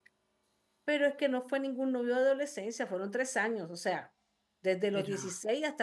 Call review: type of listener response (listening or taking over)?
listening